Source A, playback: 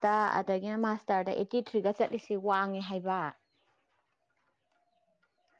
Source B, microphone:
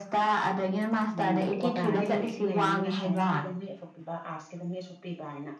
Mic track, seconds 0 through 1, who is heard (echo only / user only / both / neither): echo only